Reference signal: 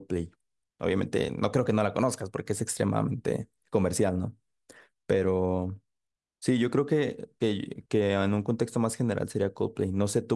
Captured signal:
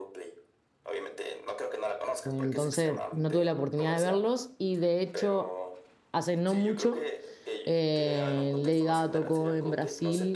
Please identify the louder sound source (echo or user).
user